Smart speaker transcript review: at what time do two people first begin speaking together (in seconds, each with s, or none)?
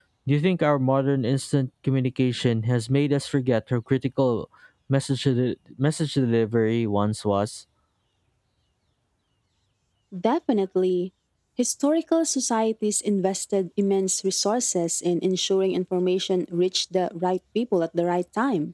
none